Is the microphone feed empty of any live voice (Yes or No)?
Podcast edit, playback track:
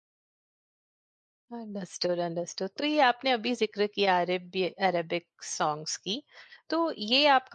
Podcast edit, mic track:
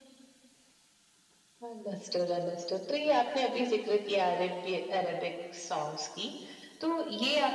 Yes